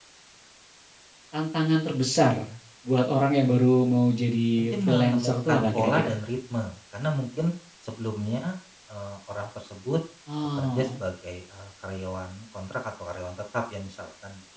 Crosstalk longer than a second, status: present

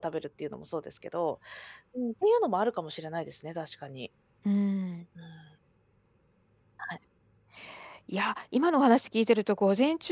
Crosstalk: none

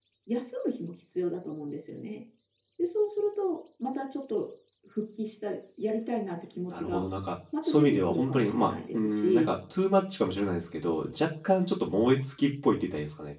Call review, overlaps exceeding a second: present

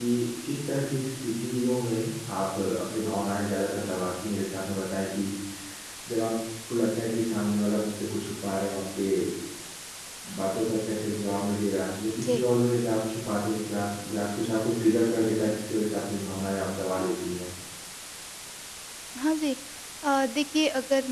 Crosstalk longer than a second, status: none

